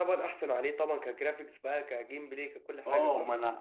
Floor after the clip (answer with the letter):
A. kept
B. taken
B